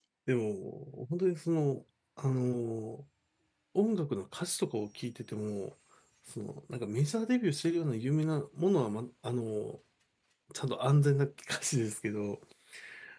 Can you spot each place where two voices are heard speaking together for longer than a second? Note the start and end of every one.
none

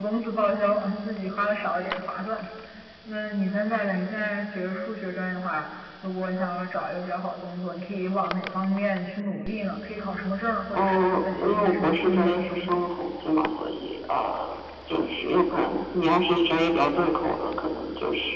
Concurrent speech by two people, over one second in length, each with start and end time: 10.7-12.8

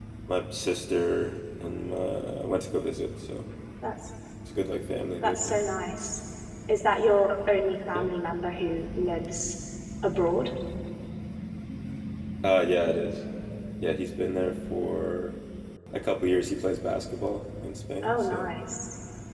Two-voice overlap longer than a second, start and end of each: none

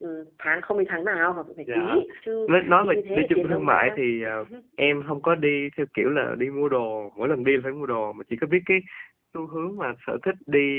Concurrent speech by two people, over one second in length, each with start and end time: 2.5-4.0

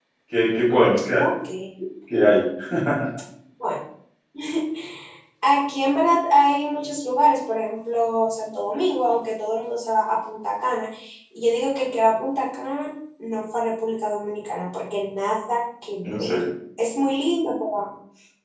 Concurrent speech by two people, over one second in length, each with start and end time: none

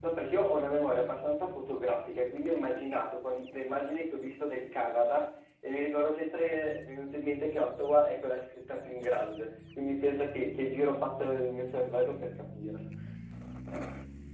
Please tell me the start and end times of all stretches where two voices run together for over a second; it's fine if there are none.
none

